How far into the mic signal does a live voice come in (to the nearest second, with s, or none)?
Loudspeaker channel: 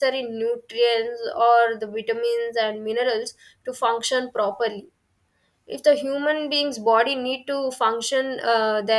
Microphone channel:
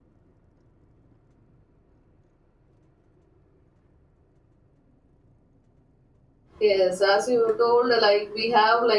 7 s